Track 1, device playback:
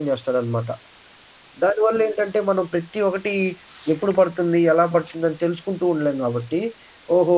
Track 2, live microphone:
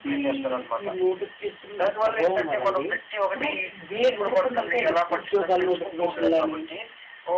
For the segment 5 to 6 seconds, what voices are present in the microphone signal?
both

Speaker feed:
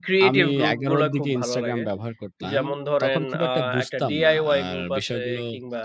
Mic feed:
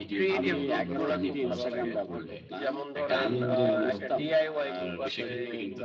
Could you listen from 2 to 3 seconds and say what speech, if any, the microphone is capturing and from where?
both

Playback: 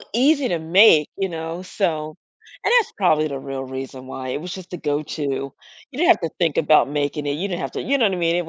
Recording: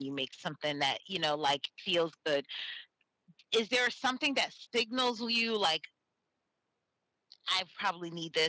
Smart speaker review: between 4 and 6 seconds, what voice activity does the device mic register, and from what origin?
user only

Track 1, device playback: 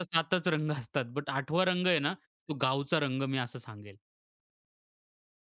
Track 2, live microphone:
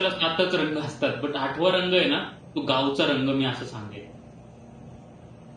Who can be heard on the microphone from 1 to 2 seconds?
echo only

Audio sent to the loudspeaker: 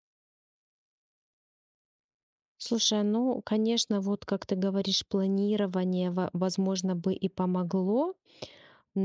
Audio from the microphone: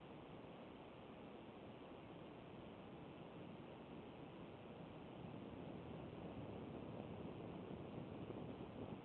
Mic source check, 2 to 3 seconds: neither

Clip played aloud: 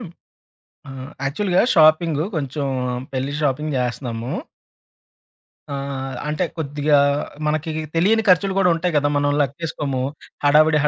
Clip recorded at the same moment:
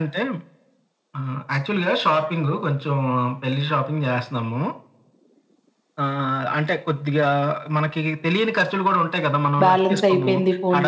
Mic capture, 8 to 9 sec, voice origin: echo only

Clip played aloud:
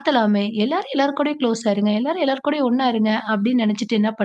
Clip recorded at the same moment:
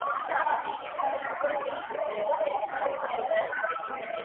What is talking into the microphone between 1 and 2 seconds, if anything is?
echo only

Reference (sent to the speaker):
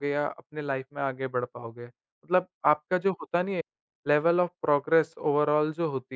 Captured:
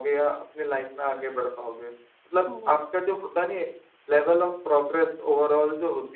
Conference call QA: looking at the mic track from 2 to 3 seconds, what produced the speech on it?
both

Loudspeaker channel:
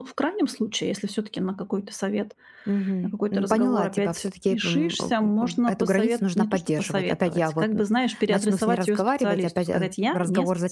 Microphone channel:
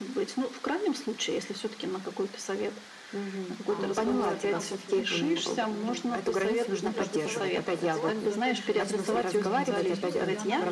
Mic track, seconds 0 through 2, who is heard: echo only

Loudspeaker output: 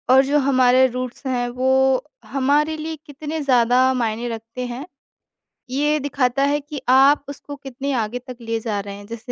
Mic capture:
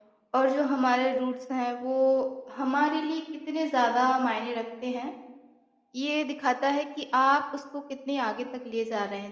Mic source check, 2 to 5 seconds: echo only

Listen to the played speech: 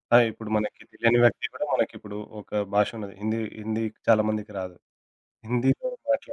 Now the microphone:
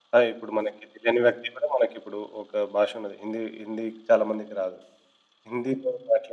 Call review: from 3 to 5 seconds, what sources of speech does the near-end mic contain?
echo only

